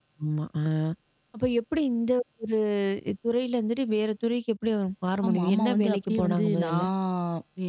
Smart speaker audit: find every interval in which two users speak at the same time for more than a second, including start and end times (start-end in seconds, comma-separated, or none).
5.3-6.8